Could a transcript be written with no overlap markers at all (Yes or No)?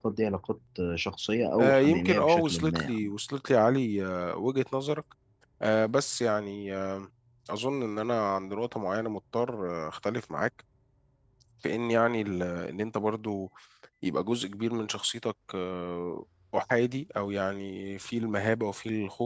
No